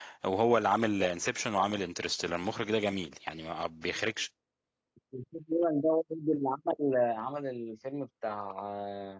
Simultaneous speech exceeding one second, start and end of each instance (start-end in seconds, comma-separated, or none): none